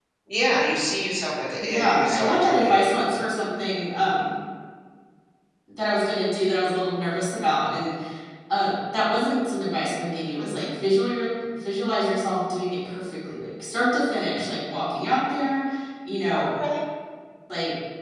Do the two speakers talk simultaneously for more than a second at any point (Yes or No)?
Yes